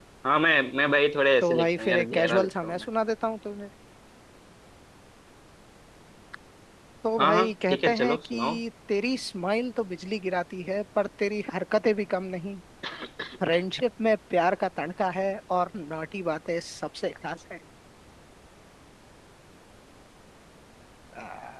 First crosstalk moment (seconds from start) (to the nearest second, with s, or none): 1 s